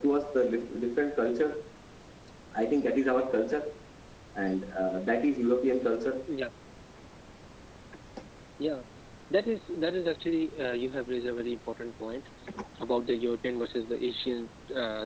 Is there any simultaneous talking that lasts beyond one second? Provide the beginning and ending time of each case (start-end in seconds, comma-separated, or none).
none